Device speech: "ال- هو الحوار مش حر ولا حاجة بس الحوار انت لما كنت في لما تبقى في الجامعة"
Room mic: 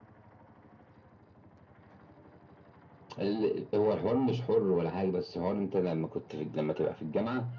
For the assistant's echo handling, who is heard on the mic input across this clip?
echo only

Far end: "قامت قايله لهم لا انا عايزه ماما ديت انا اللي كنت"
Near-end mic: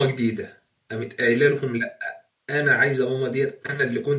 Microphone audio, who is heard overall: echo only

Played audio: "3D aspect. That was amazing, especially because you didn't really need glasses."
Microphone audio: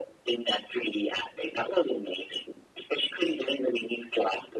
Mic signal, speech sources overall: echo only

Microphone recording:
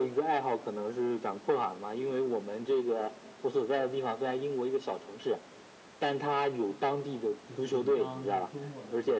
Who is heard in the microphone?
both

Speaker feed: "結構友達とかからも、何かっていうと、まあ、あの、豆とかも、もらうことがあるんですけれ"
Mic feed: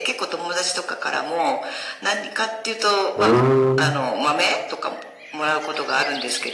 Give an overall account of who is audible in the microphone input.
both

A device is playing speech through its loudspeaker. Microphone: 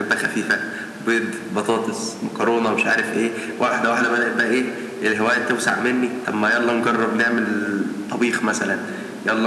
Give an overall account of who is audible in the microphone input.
echo only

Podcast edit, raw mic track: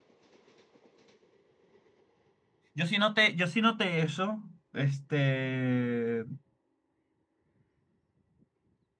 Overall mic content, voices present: user only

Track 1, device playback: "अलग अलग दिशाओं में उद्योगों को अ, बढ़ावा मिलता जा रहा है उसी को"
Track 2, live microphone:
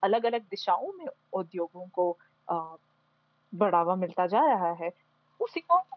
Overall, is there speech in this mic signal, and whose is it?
echo only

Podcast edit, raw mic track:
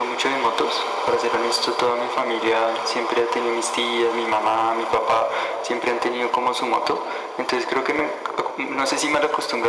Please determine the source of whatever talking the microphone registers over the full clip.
echo only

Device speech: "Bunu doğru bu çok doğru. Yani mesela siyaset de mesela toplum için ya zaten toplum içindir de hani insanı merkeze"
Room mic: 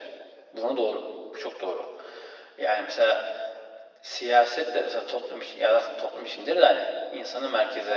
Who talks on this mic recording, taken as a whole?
echo only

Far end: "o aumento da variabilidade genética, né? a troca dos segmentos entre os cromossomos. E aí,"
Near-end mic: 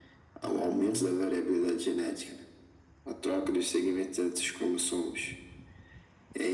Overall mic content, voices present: both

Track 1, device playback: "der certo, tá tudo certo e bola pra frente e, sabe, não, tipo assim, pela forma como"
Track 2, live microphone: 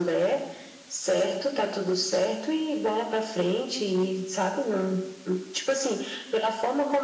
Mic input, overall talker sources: echo only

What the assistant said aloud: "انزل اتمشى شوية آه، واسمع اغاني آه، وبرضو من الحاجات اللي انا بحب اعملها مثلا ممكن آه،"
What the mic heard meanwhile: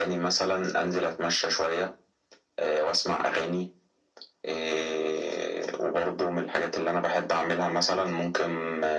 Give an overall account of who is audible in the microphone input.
echo only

